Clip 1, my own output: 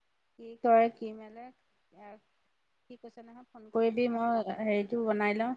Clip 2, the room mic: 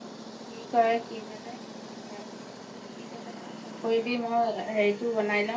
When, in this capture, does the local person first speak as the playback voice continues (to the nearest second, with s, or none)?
none